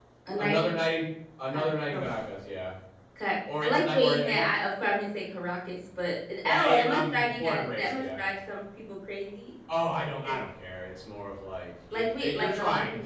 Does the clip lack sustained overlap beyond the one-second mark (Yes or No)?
No